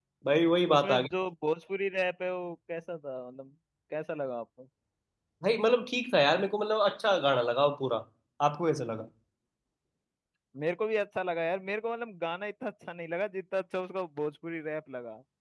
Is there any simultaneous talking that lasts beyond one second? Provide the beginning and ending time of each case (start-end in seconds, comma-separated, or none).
none